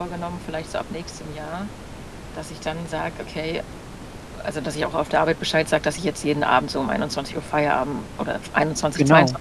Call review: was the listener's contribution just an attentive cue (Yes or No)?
Yes